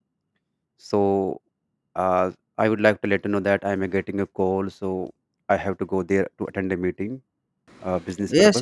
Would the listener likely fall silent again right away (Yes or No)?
No